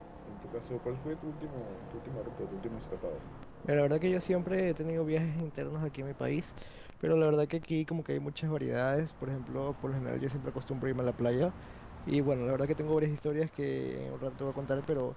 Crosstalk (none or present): none